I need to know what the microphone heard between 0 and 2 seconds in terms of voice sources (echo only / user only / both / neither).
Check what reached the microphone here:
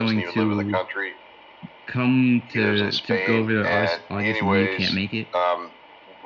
both